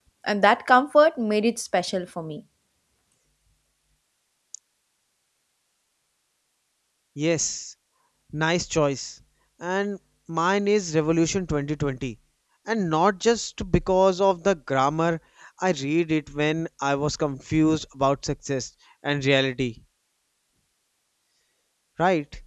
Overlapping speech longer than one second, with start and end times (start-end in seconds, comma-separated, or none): none